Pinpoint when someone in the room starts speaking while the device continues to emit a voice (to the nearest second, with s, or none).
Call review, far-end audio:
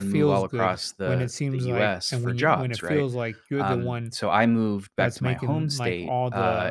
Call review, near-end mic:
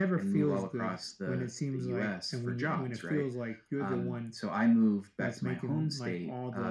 none